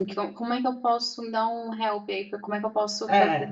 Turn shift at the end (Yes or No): Yes